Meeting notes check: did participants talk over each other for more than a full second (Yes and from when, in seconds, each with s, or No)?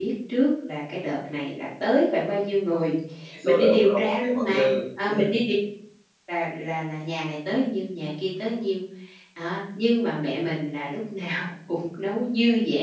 Yes, from 3.5 s